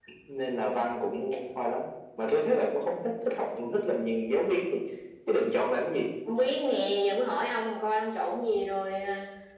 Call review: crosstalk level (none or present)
none